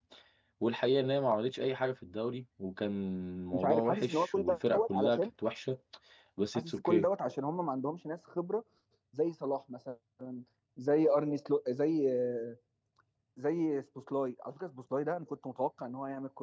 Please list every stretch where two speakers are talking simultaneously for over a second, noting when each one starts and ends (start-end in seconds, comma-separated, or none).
3.5-5.3